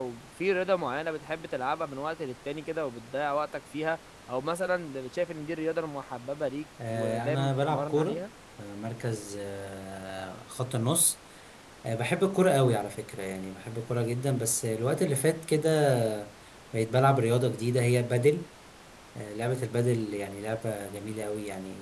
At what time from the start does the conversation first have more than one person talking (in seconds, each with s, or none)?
6.8 s